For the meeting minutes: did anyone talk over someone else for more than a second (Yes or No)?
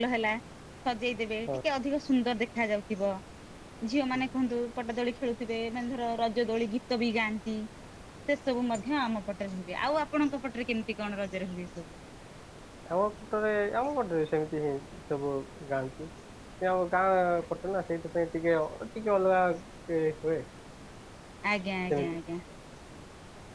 No